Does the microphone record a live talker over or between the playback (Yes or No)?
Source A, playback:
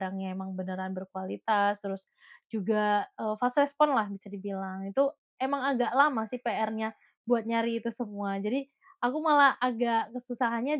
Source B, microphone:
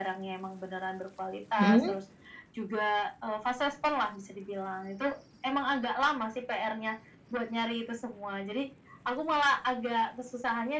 Yes